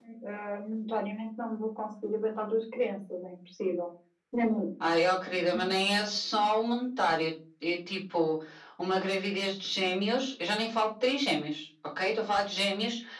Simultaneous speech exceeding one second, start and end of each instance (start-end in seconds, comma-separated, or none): none